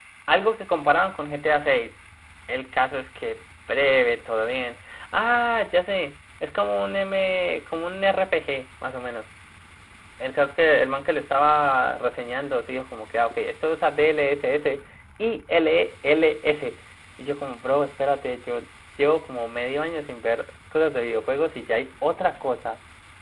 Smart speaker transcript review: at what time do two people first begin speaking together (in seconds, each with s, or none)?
none